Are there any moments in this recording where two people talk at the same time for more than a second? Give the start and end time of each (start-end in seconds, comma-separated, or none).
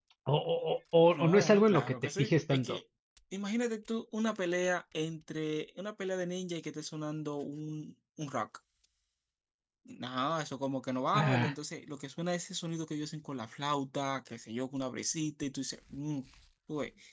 1.1-2.8